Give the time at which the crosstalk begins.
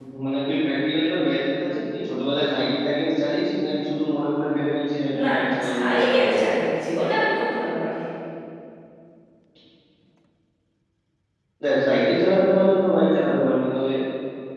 5 s

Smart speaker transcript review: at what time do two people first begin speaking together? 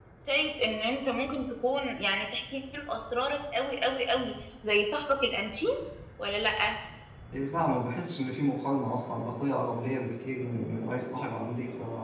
none

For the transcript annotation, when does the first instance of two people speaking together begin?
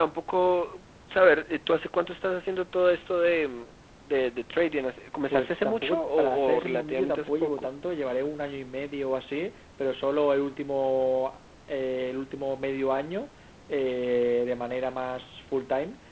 5 s

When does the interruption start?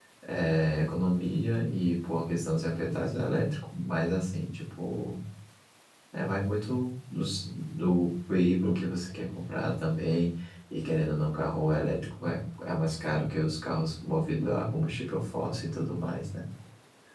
none

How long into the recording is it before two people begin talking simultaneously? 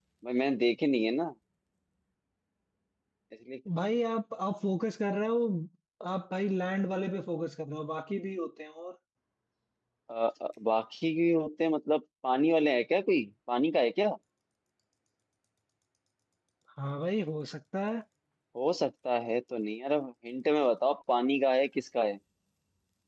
none

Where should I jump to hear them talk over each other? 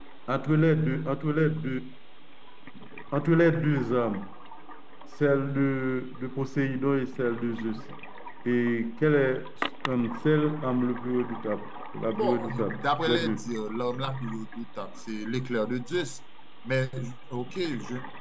12 s

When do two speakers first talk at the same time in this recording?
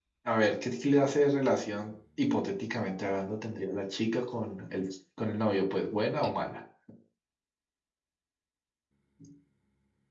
none

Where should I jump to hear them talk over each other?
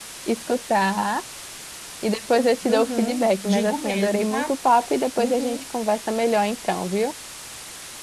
3 s

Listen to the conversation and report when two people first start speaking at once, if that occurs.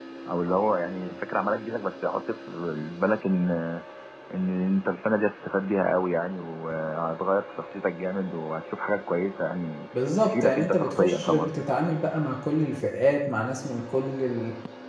10 s

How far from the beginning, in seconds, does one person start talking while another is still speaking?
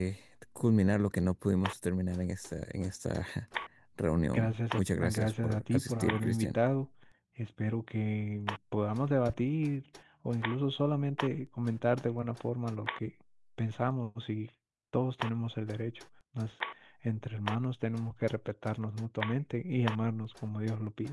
4 s

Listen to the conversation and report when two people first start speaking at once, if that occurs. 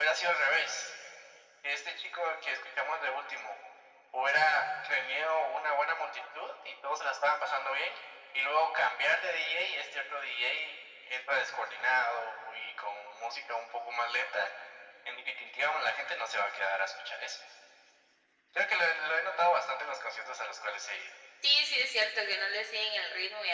none

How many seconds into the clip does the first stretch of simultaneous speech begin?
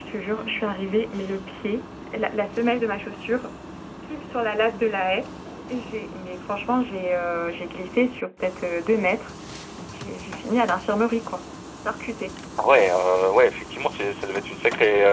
none

